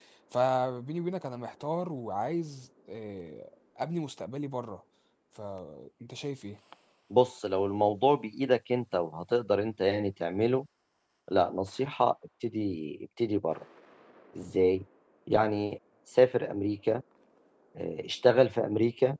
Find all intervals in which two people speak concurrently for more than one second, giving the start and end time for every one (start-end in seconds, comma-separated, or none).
none